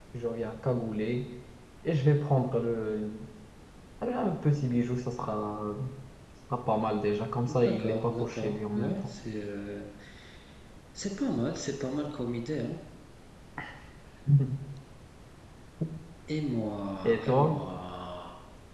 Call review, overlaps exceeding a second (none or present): present